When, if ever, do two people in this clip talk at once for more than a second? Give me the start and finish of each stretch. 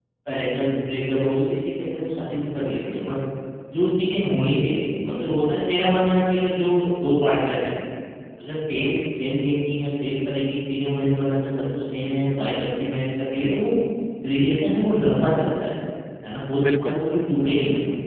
none

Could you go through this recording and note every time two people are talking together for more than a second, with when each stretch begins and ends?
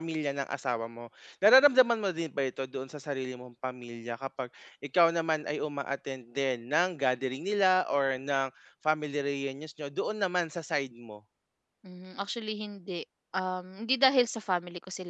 none

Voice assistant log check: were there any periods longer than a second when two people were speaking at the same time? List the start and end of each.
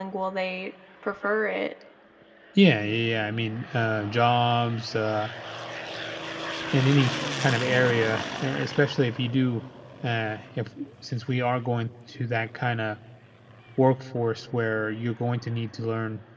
none

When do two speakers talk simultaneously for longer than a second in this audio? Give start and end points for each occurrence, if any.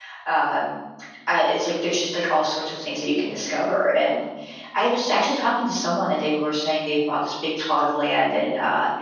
none

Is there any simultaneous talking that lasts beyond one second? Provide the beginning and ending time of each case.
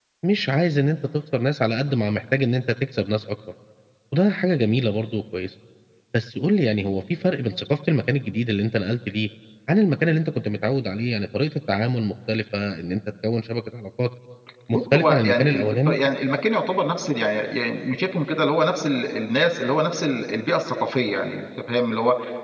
14.7-16.0

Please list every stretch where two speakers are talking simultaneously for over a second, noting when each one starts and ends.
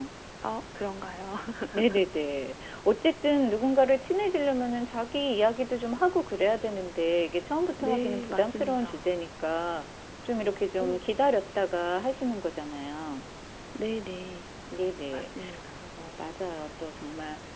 7.8-9.1

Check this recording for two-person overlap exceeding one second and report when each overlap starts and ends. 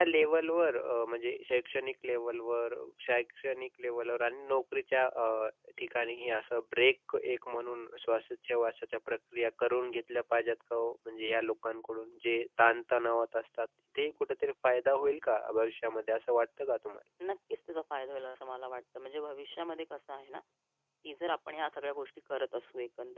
none

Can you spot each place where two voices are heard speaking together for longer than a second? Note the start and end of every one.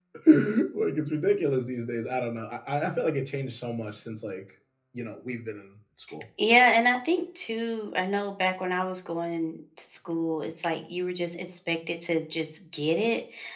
none

